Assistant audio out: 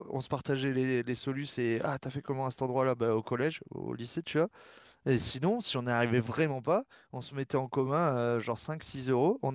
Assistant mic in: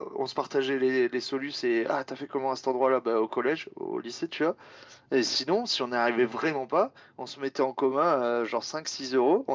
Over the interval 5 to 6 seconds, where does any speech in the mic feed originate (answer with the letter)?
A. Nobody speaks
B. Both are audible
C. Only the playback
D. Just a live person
C